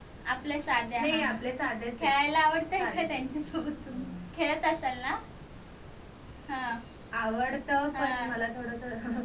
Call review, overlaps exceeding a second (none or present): none